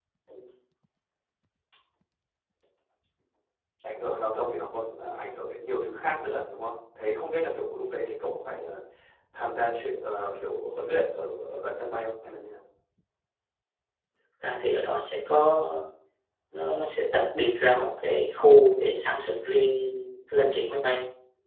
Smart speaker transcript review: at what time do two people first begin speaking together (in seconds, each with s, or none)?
none